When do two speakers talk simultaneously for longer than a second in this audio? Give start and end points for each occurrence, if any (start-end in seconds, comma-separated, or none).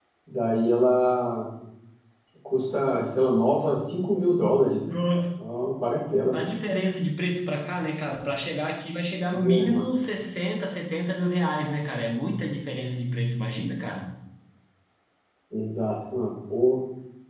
none